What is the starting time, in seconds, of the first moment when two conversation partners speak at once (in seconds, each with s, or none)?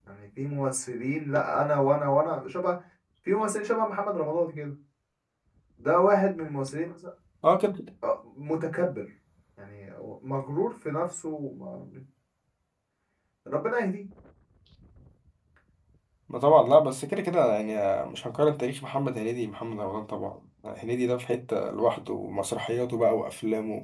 none